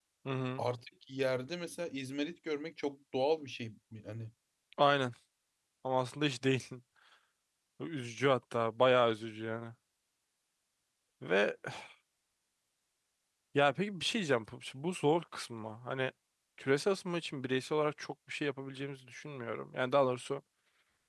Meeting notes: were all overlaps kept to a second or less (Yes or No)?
Yes